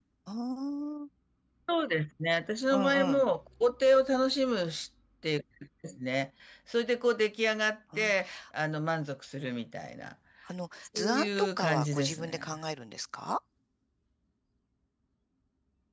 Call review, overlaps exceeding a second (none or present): present